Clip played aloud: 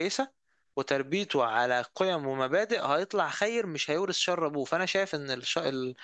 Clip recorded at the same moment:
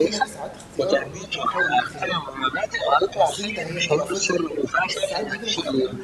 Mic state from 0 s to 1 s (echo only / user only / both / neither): both